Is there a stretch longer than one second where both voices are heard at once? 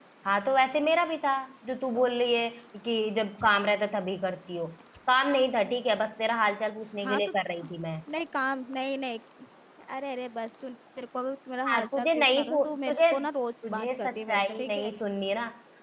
Yes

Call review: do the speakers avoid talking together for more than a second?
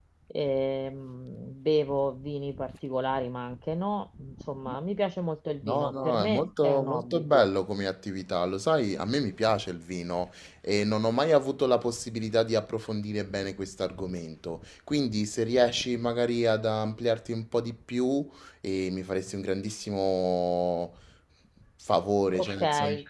No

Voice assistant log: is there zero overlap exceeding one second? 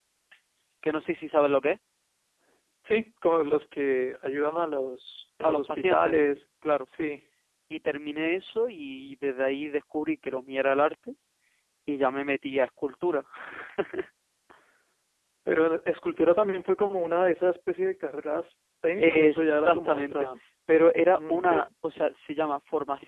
No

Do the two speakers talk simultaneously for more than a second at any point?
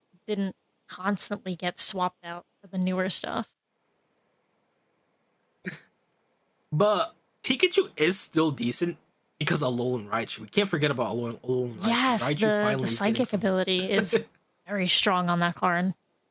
Yes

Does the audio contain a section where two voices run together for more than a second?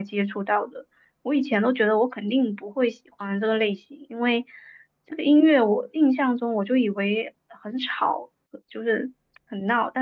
No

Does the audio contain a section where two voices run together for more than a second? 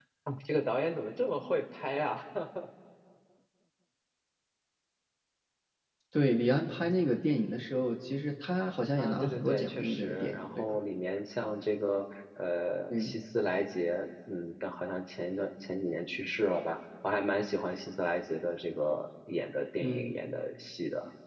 Yes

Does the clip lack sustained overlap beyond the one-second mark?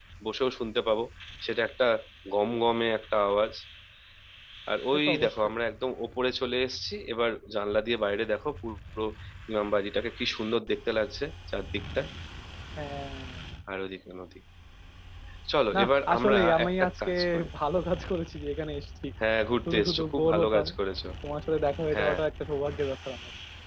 No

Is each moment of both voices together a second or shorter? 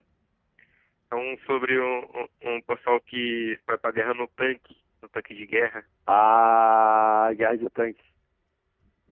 Yes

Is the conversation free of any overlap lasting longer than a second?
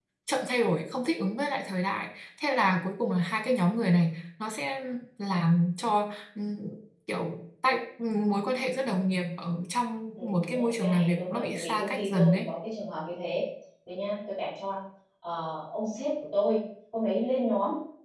No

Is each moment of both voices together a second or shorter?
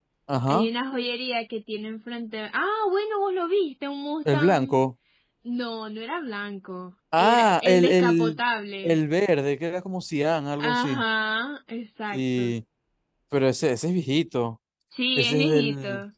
No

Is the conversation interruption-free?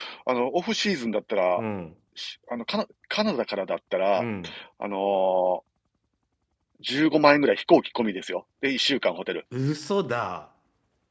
Yes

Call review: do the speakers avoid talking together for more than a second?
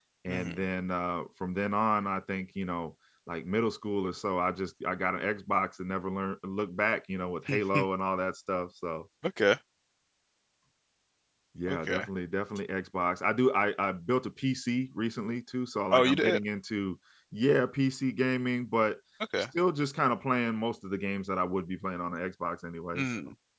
Yes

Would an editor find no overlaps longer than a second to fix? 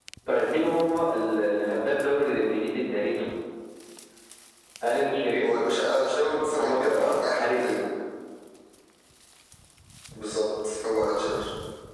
No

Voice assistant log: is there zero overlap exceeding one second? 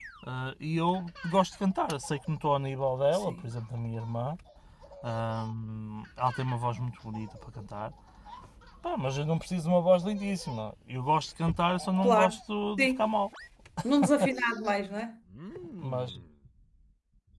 Yes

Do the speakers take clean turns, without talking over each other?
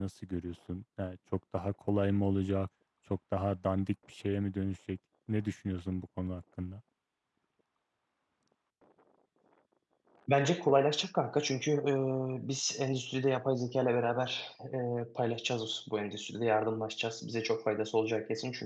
Yes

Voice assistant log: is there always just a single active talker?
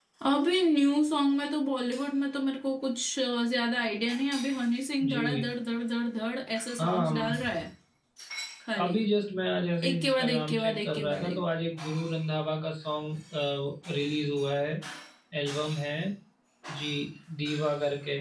No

